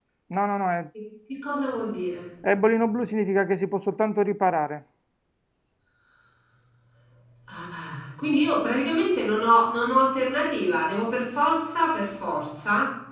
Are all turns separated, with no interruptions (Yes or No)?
Yes